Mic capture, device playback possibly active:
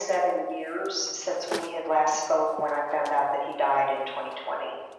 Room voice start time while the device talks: none

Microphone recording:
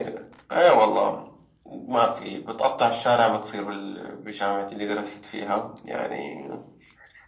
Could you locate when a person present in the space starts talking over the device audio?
none

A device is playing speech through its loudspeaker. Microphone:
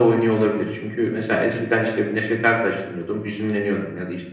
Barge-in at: none

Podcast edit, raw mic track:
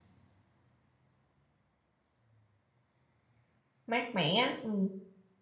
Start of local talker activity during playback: 3.9 s

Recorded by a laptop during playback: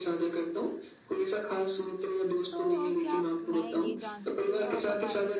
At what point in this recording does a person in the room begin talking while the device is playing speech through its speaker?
2.5 s

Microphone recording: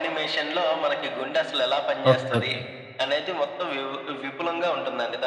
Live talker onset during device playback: 2.1 s

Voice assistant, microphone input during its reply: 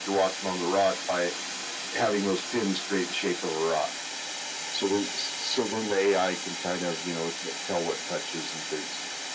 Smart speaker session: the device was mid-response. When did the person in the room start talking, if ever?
none

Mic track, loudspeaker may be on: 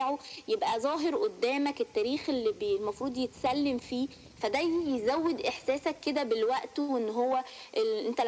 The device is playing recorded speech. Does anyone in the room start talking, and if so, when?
none

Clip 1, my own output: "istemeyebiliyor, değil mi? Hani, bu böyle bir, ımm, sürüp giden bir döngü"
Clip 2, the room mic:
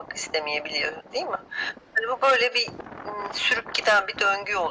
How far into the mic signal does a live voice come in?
none

